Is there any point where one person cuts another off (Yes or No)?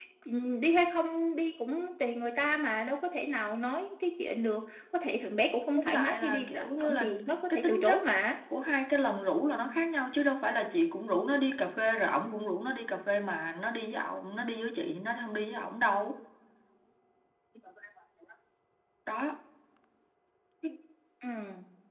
Yes